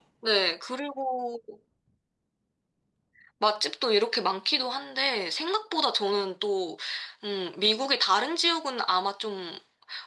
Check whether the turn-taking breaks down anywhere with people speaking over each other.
No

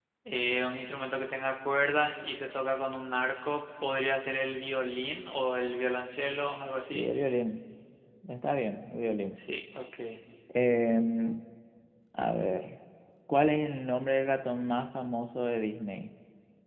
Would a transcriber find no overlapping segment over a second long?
Yes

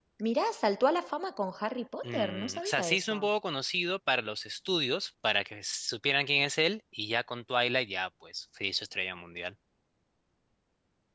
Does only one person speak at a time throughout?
No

